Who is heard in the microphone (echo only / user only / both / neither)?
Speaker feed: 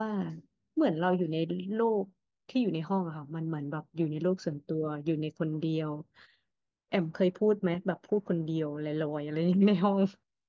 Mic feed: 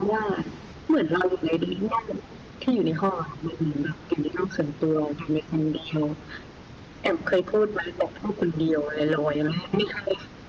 echo only